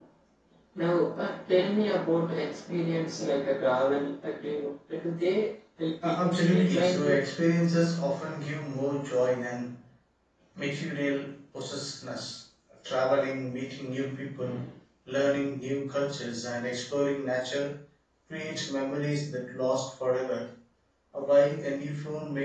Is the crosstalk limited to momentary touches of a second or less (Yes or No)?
No